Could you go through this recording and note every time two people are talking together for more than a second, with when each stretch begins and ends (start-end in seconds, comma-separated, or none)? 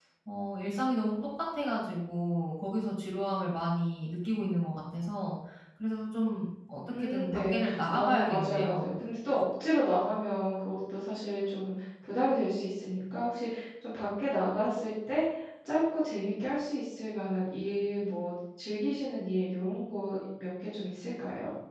6.9-8.9